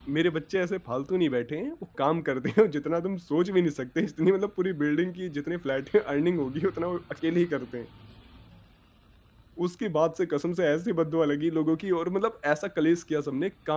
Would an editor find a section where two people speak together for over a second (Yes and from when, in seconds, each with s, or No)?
No